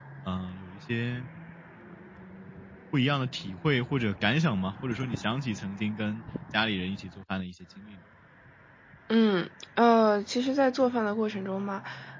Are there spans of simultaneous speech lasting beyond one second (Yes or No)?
No